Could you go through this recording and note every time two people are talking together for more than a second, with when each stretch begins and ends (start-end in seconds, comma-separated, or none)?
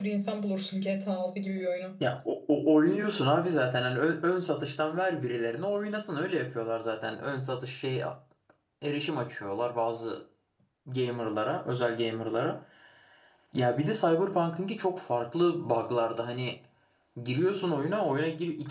none